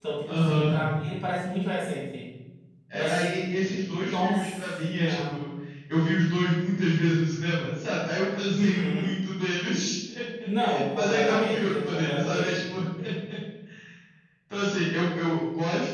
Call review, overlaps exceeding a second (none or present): present